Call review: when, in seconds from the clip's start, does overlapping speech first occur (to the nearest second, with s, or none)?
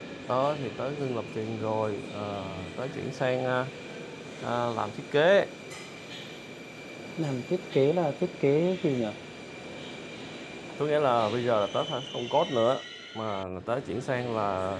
none